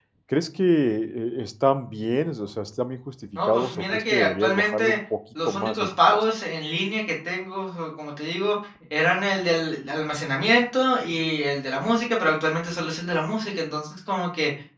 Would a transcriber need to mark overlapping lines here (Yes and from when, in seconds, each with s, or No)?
Yes, from 3.4 s